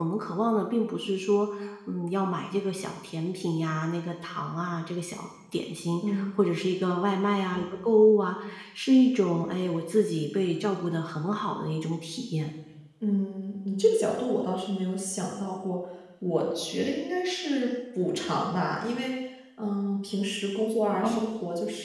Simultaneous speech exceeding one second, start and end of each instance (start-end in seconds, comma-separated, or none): none